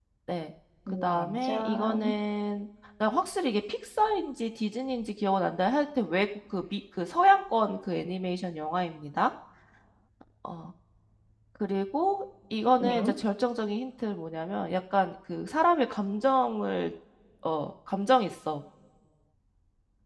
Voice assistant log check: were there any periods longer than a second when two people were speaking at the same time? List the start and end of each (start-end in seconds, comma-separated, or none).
0.9-2.1